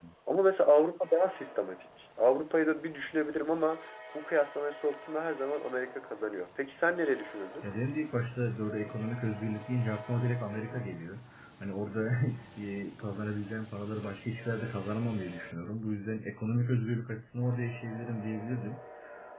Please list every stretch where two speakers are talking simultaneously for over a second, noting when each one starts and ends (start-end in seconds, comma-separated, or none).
none